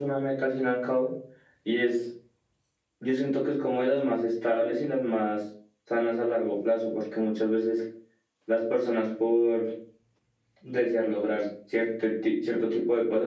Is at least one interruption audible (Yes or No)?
No